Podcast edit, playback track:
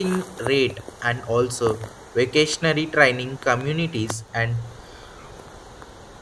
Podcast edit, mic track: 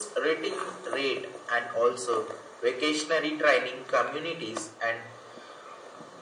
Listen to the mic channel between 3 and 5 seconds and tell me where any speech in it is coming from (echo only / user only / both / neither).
echo only